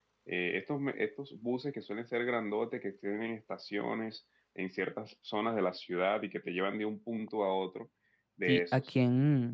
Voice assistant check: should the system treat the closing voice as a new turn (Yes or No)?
Yes